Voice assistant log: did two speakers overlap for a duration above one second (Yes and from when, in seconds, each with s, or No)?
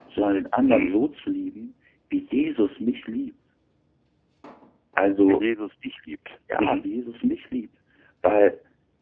No